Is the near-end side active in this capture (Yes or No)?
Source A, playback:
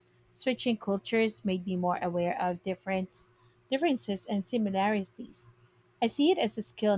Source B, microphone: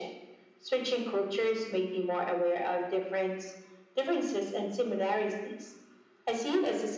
No